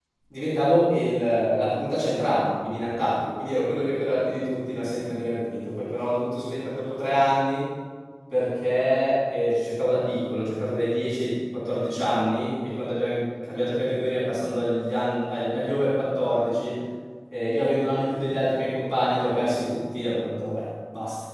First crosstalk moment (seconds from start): none

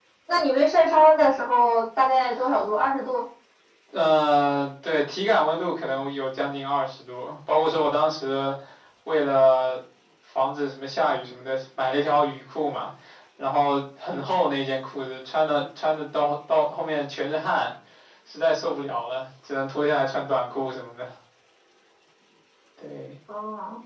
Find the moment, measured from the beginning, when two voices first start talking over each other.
none

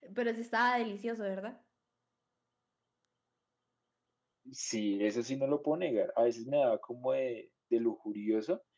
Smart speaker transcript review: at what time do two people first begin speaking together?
none

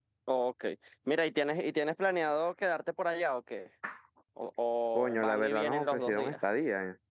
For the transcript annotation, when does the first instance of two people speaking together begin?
4.9 s

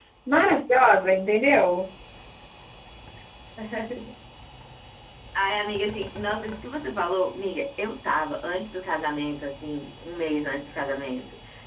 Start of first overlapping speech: none

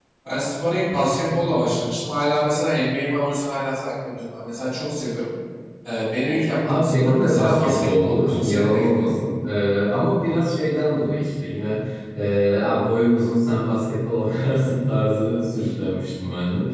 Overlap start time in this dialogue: 6.7 s

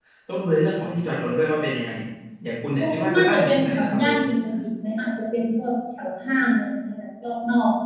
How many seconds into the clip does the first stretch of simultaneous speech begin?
2.8 s

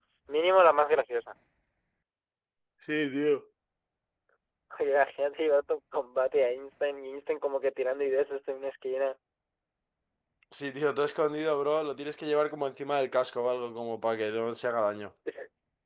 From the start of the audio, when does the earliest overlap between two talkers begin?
none

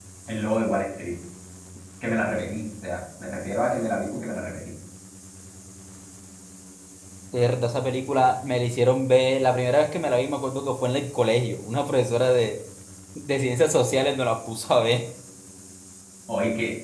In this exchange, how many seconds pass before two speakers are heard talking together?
none

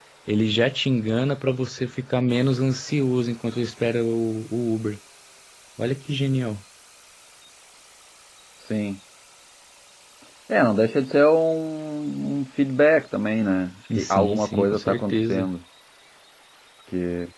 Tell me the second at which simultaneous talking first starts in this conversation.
13.9 s

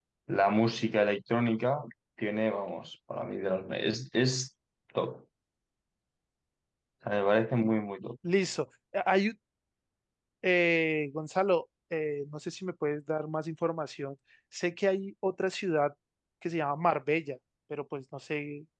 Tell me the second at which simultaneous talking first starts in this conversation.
none

